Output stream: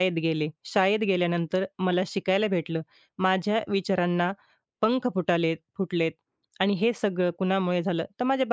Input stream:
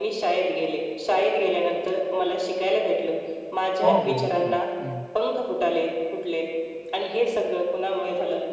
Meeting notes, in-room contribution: present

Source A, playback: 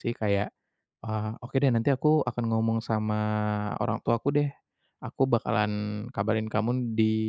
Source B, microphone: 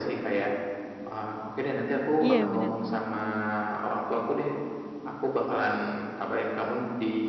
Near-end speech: present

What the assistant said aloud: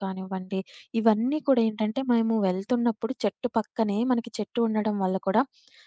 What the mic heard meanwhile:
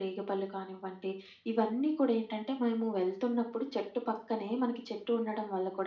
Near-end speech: none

